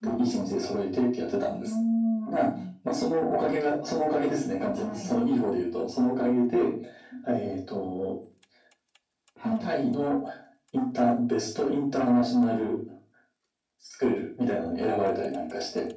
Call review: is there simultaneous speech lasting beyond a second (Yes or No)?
No